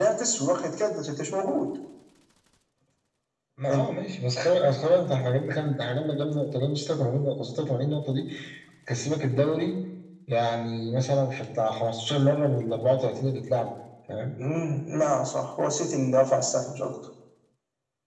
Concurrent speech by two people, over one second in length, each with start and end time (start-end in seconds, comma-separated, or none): none